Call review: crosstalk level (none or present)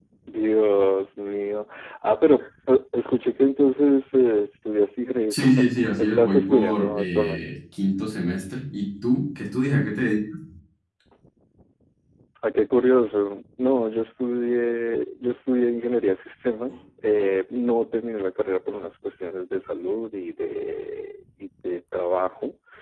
present